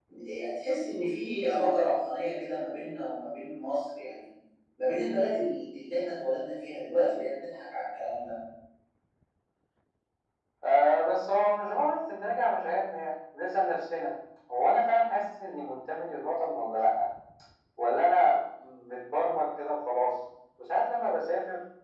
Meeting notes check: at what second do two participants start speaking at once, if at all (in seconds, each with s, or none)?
none